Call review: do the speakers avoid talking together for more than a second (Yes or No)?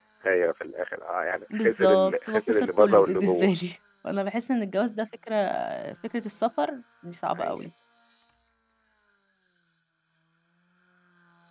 No